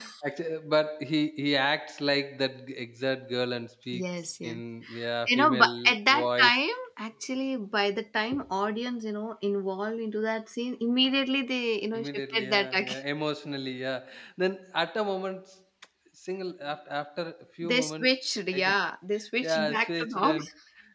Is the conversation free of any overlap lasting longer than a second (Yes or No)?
No